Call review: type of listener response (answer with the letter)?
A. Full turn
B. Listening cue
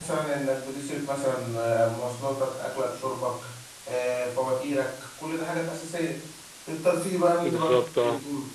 B